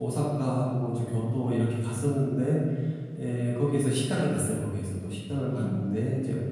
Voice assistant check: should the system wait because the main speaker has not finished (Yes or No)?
Yes